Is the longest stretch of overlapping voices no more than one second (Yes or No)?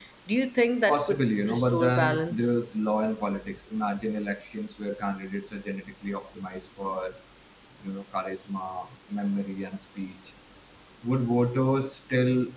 No